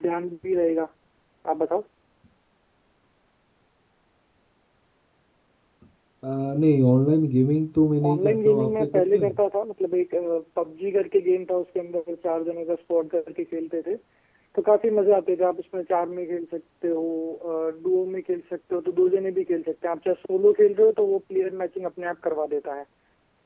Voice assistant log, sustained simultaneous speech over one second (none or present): present